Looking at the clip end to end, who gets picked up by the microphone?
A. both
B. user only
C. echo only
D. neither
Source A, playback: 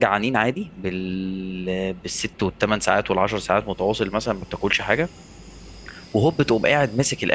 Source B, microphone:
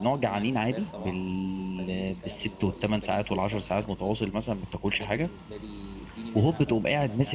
A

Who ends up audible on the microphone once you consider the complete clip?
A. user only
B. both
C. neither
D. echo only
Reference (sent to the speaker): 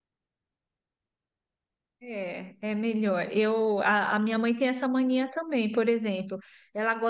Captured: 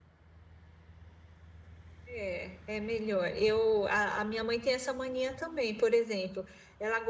D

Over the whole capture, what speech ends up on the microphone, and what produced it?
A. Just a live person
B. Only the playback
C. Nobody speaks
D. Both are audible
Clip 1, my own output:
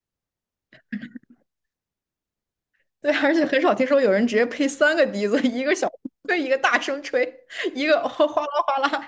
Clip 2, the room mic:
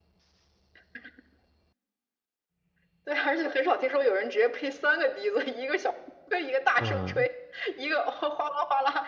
D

